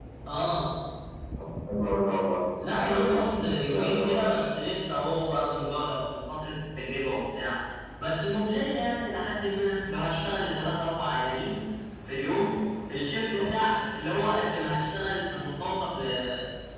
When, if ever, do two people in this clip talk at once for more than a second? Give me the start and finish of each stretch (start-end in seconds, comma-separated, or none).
2.6-4.5